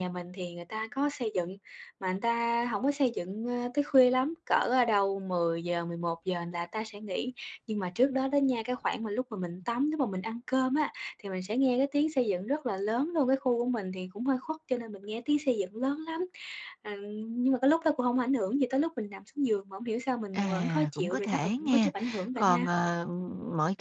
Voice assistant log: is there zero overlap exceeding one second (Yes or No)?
No